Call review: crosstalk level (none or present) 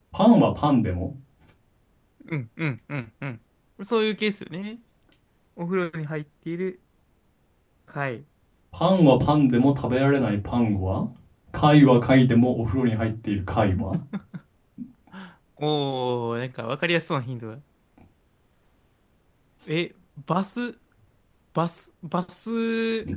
none